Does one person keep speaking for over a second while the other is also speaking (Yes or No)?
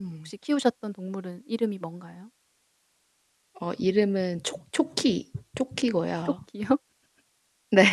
No